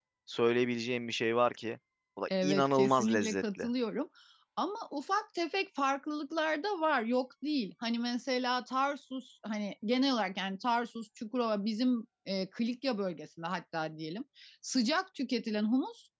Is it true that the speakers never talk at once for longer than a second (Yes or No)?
No